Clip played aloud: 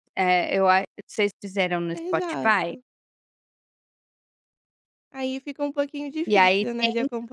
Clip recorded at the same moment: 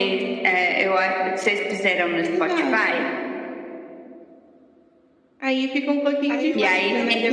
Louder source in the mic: echo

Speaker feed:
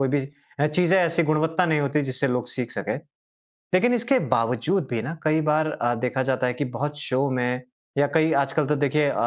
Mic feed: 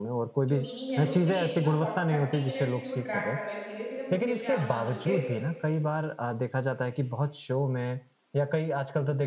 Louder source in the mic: echo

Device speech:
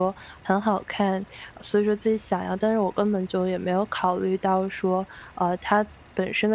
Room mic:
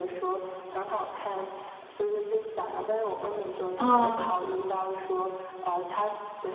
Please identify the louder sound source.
user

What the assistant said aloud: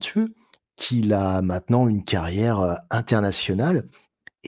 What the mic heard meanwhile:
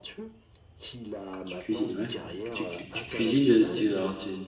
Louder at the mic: user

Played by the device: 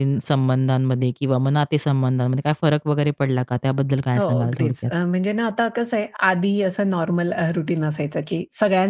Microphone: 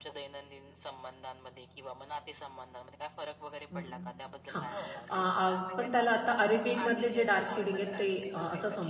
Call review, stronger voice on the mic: user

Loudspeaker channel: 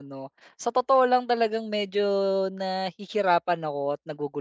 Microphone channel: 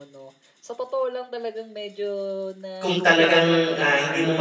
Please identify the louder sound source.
user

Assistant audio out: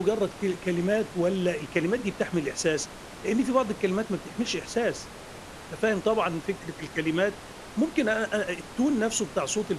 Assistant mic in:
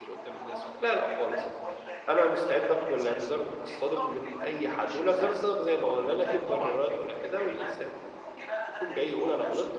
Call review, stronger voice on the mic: user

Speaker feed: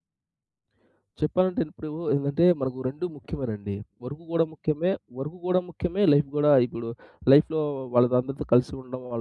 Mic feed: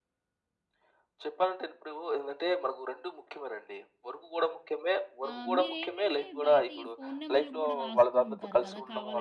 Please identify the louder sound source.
echo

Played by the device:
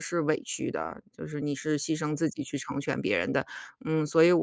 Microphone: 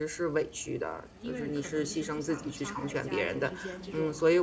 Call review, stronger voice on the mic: echo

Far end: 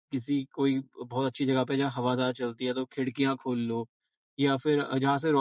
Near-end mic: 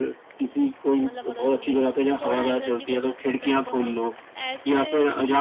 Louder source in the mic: echo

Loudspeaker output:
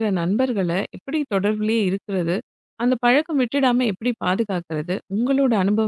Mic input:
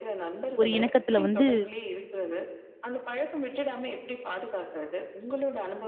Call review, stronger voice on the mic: user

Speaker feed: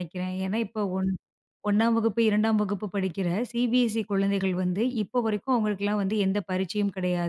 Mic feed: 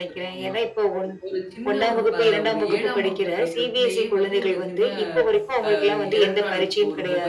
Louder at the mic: echo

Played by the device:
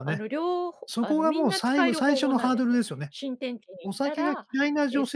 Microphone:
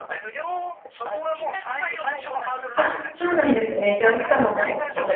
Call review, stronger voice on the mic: user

